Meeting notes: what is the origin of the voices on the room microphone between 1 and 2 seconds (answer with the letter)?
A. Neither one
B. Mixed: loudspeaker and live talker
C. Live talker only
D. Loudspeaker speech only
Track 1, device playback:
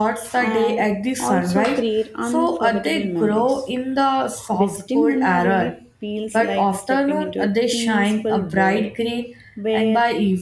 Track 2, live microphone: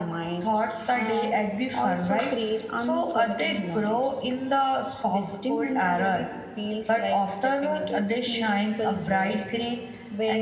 D